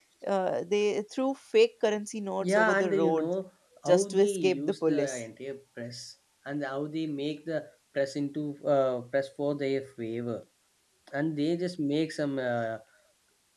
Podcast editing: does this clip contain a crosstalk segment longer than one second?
Yes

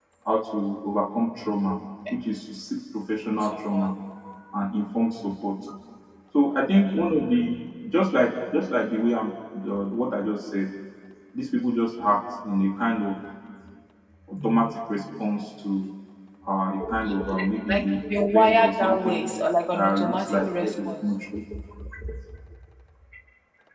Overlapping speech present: Yes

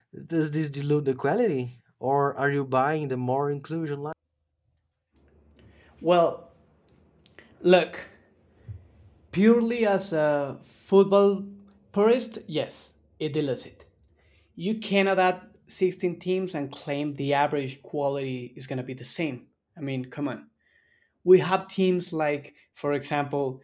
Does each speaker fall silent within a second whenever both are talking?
Yes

